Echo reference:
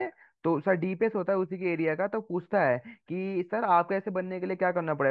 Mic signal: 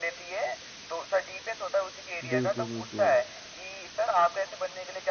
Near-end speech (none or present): present